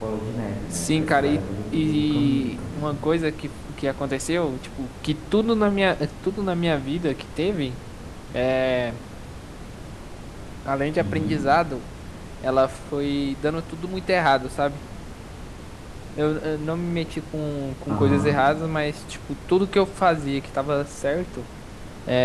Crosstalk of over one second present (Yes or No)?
Yes